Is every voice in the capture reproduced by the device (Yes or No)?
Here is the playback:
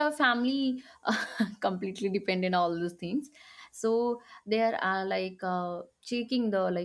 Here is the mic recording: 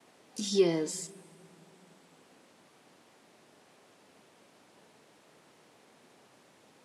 No